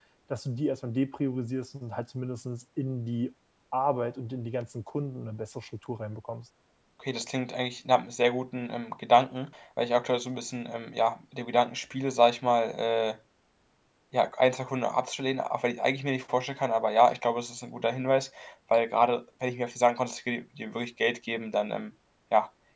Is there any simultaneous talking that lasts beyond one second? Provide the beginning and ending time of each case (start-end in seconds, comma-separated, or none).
none